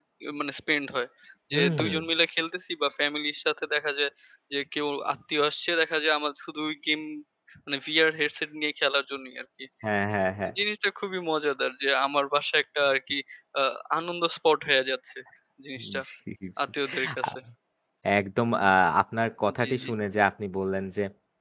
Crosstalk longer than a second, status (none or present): none